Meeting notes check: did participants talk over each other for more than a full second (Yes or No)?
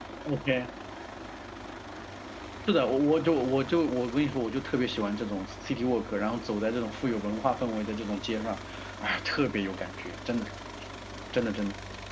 No